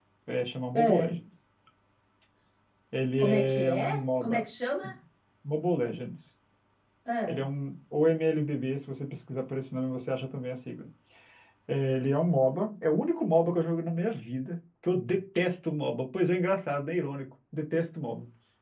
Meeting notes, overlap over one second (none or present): present